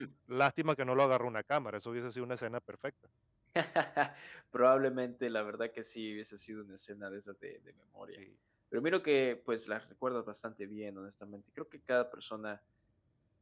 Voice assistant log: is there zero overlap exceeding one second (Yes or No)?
Yes